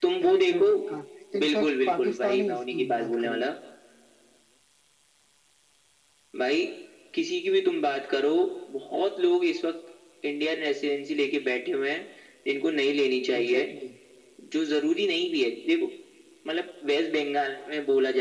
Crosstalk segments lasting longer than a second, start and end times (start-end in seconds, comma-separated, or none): 1.4-3.4